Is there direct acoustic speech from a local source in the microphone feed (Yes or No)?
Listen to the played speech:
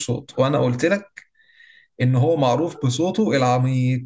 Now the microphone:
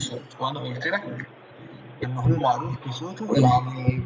No